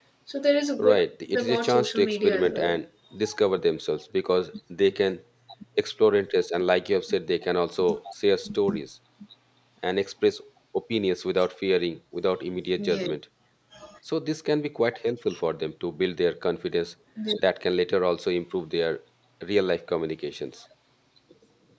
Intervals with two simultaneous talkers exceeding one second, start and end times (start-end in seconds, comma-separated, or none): 1.3-2.8